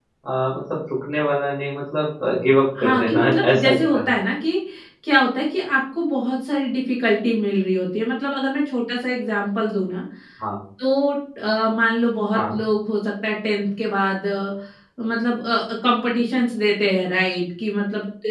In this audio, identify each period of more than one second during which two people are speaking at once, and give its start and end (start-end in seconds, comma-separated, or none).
2.8-4.1